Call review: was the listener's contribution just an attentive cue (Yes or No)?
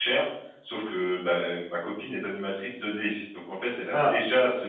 Yes